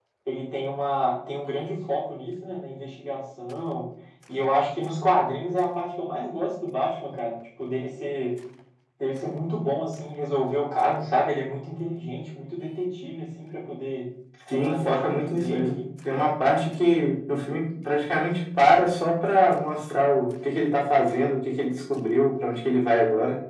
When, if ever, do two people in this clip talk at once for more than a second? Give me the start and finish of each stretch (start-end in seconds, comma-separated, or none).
14.5-15.8